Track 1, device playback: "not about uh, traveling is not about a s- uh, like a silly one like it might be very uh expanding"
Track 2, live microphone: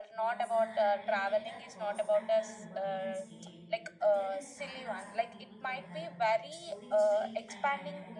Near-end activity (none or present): present